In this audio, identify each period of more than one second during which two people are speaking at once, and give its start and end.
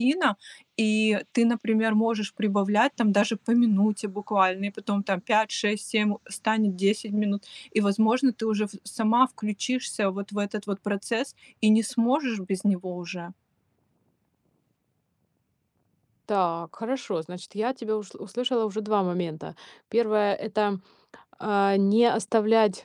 none

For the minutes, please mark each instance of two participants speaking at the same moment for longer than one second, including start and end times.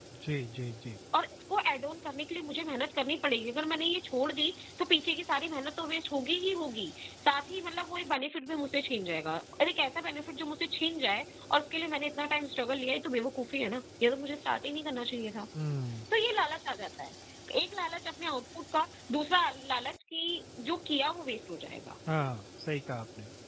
none

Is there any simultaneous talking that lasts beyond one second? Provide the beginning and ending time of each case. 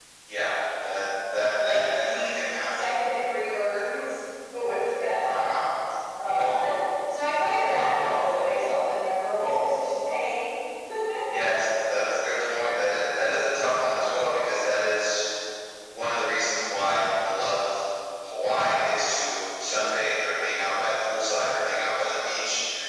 1.6-3.0

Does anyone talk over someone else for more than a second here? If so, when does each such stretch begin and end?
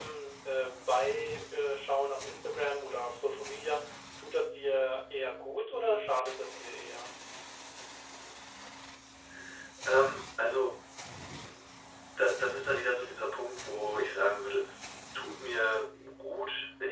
none

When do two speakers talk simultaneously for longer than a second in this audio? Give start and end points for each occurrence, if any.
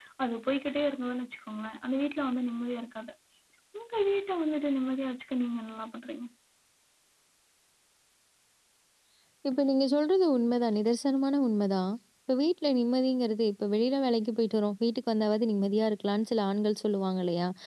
none

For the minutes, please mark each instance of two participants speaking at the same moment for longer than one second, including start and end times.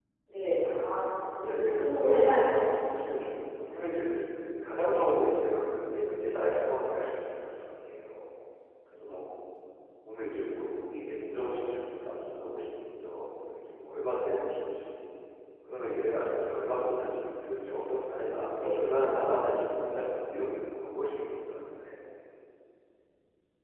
1.5-3.0

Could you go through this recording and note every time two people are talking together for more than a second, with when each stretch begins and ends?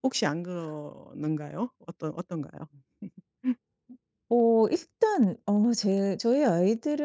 none

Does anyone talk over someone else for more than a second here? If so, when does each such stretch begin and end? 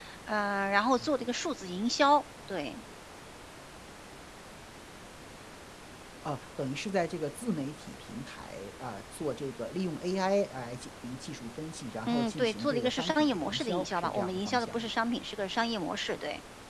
12.1-14.9

